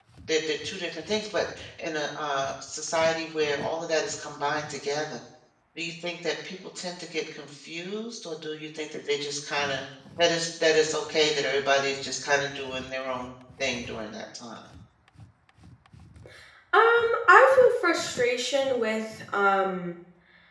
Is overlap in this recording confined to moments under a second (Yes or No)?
Yes